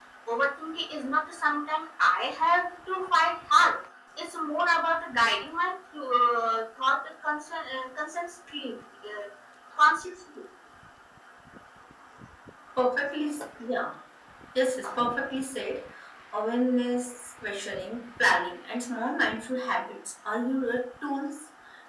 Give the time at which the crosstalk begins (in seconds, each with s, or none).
none